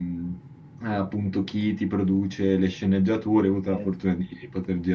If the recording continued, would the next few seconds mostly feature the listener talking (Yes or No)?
No